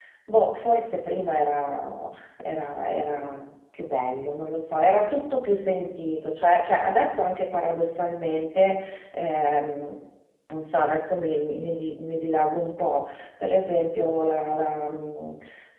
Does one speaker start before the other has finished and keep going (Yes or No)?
No